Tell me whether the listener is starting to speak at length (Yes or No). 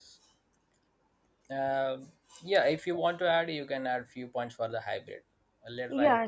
Yes